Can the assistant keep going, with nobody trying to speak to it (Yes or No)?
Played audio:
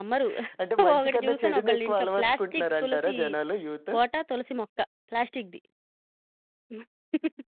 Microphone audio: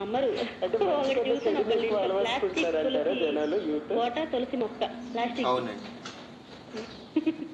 No